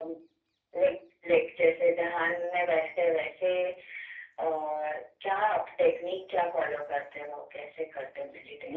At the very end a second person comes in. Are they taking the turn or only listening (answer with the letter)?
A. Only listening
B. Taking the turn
B